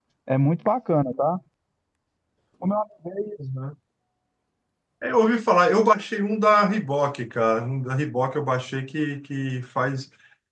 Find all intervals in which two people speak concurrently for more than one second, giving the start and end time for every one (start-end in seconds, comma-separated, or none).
none